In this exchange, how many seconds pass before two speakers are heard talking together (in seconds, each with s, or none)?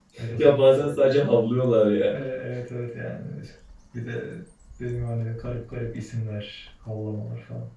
none